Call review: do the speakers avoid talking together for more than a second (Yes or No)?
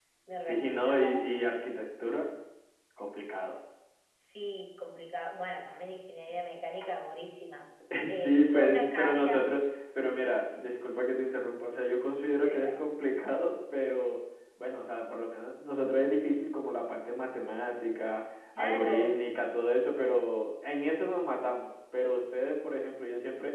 No